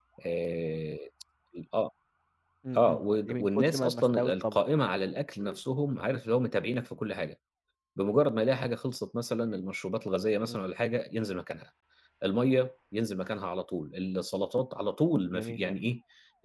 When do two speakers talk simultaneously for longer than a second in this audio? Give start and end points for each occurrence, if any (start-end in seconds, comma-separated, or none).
2.8-4.6